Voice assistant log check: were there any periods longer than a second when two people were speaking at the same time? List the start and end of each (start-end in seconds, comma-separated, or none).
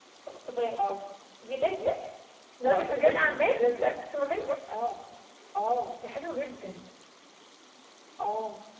2.6-4.1